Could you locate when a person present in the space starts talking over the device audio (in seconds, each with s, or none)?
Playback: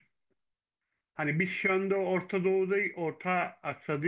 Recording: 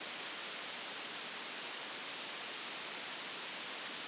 none